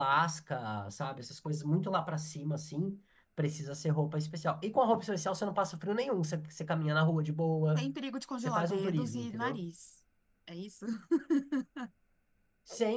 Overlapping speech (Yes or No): Yes